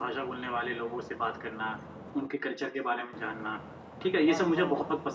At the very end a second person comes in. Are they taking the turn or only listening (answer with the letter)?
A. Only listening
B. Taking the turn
A